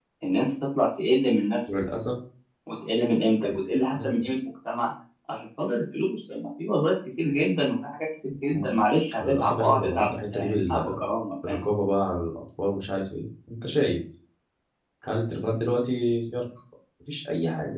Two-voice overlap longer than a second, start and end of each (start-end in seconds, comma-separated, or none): 9.2-10.9